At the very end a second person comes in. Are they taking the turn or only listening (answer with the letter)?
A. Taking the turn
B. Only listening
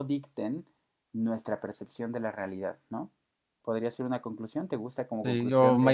A